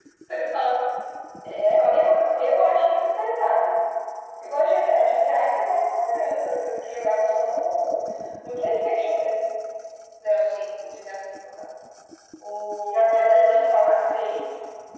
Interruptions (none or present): present